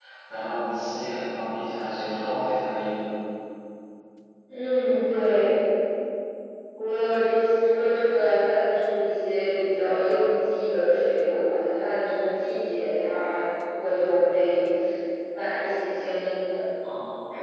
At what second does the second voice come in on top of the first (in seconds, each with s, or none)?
none